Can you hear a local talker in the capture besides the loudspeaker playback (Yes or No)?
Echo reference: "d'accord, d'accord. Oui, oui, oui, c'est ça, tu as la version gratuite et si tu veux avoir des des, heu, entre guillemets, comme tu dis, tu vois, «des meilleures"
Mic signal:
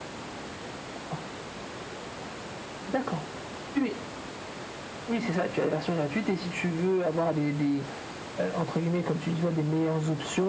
No